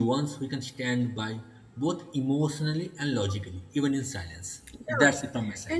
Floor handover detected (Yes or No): Yes